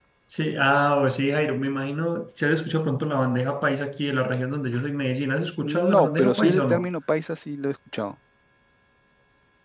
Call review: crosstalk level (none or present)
present